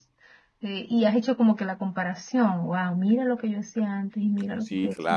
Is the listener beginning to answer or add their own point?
Yes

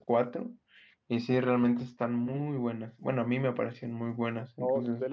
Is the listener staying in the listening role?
No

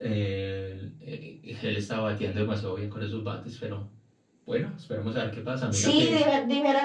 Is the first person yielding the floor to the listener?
Yes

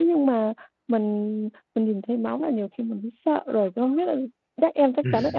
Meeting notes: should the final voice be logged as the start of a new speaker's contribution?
No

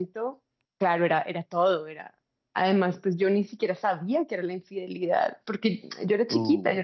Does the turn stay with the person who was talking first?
Yes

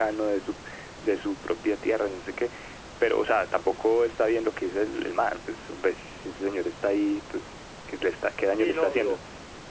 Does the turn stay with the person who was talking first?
No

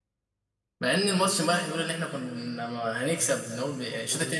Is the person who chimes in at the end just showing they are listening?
Yes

